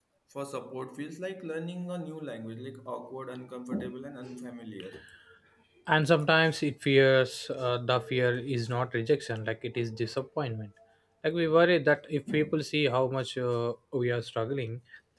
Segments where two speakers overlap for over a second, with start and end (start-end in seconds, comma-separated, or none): none